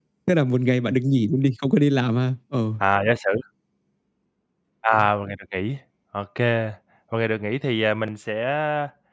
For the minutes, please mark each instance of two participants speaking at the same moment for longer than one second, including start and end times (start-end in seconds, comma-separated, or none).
none